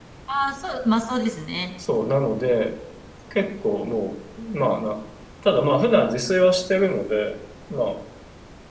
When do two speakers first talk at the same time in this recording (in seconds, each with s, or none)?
none